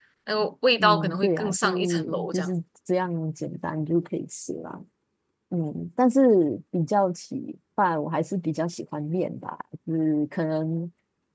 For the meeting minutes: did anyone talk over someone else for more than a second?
Yes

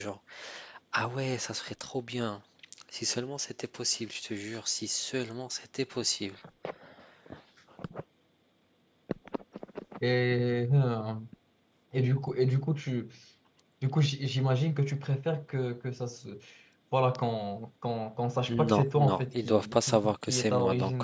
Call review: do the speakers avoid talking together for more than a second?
No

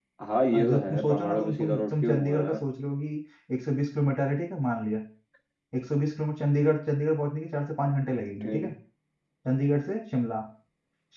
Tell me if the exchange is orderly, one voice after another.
No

